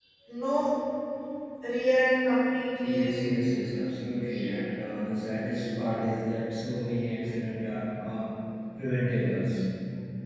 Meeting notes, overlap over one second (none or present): none